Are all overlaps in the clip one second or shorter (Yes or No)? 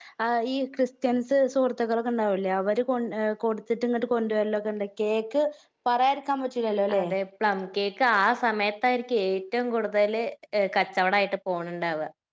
Yes